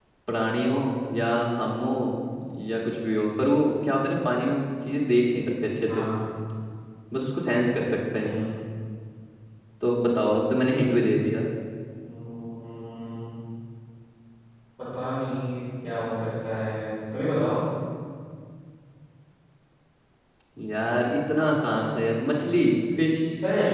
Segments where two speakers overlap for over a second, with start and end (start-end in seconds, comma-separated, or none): none